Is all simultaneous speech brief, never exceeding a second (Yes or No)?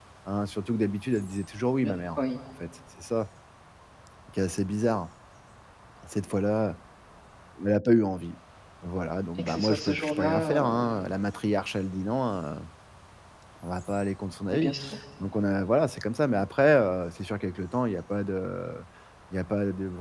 No